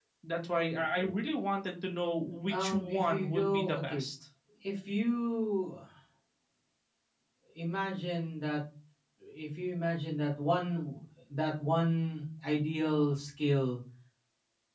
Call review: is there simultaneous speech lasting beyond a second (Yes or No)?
Yes